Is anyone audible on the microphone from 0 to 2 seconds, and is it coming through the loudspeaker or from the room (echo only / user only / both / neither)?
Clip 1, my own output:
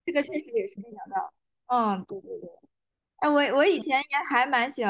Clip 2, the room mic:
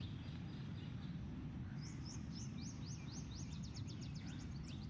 neither